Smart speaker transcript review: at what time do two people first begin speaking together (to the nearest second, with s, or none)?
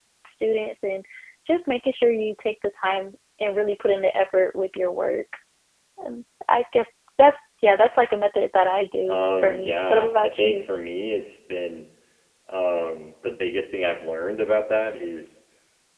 9 s